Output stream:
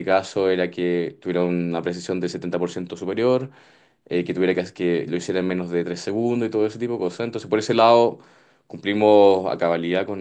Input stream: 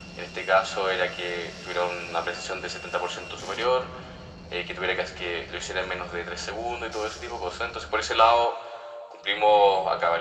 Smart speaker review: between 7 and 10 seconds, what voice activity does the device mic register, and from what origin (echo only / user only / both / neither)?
echo only